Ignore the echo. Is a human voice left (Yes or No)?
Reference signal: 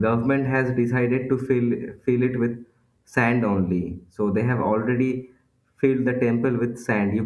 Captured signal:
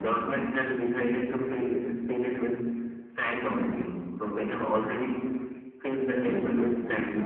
Yes